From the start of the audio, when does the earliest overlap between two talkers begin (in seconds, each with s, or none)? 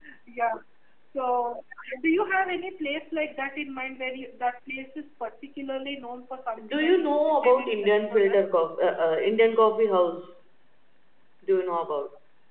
6.6 s